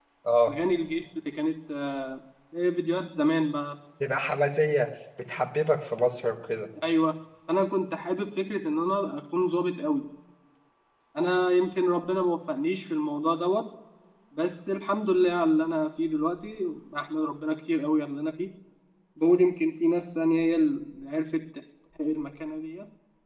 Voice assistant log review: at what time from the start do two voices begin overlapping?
none

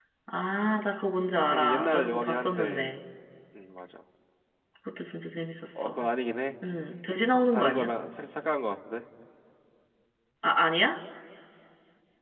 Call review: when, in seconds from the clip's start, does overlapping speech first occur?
1.5 s

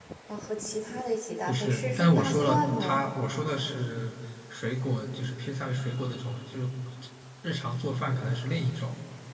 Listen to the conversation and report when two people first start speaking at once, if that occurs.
1.5 s

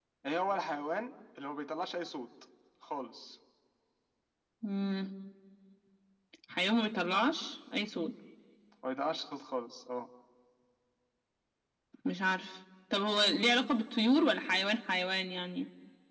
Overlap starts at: none

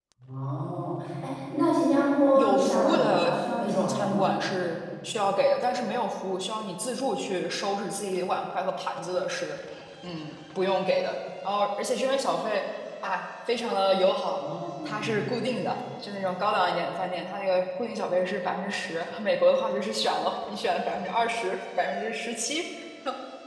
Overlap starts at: 2.4 s

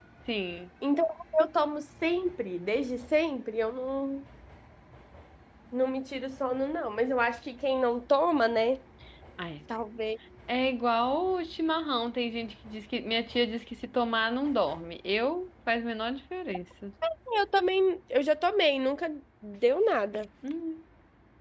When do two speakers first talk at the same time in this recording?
none

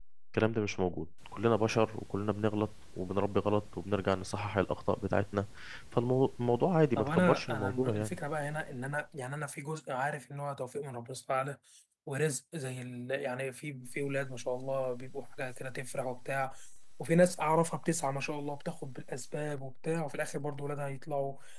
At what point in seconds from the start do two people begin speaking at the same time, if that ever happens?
7.0 s

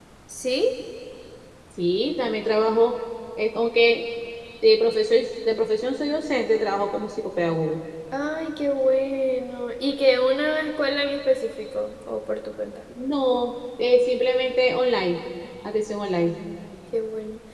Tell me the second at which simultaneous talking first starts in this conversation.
none

